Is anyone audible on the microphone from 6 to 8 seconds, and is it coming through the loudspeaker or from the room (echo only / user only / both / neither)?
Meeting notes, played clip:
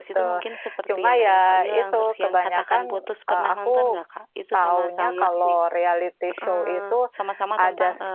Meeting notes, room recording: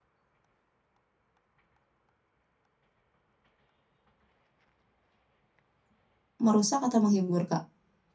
user only